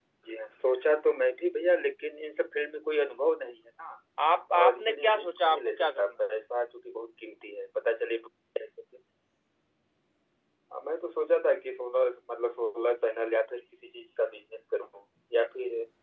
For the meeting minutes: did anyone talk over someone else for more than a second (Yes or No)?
Yes